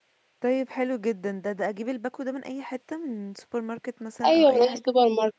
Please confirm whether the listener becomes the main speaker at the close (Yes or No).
Yes